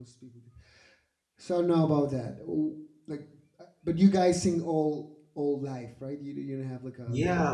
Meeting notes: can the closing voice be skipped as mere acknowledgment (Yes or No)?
No